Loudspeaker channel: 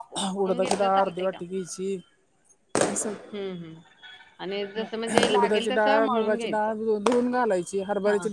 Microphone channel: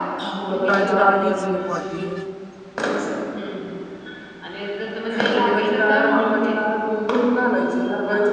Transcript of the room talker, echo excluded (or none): फूटाण्याची डाळ घ्यायची एक वाटी,